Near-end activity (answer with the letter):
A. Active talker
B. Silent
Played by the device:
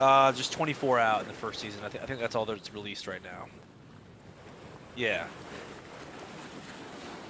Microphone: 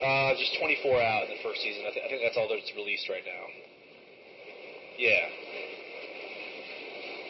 B